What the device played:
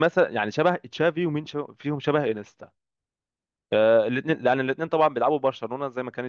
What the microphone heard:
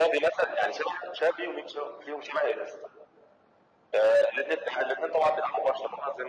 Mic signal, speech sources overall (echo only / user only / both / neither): echo only